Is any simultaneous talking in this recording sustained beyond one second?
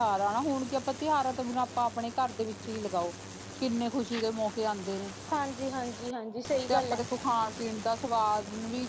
No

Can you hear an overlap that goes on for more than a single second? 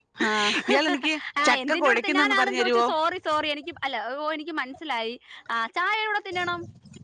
Yes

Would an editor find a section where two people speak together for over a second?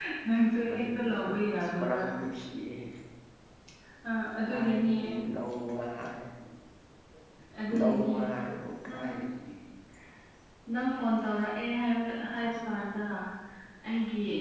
Yes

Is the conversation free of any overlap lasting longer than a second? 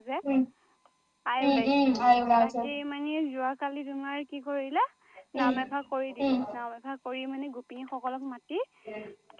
No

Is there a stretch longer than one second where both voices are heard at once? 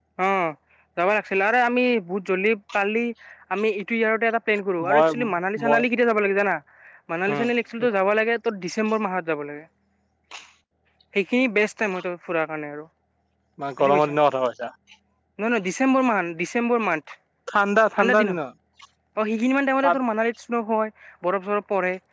No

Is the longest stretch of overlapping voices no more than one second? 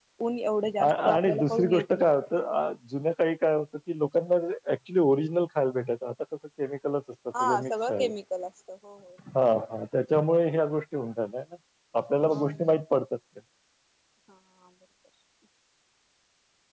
No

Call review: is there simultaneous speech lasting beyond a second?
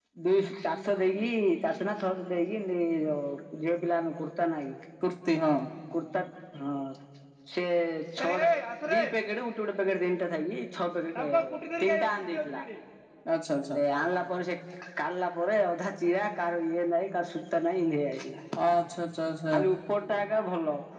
No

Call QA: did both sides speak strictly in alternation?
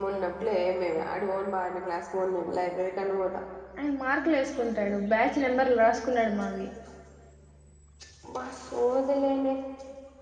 Yes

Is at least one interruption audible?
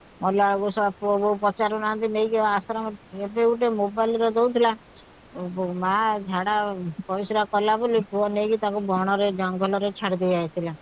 No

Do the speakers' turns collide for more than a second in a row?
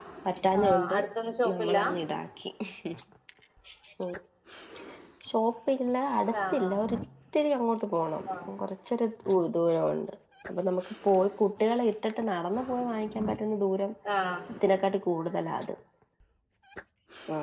No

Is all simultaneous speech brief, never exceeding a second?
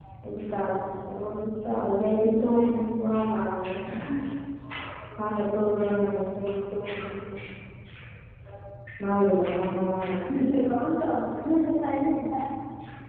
Yes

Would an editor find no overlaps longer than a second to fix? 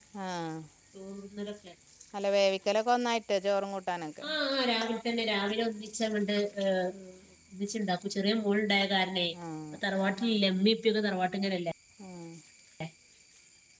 Yes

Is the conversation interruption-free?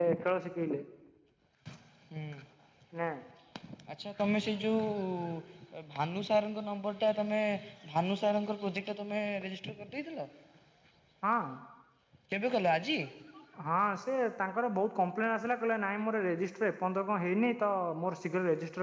Yes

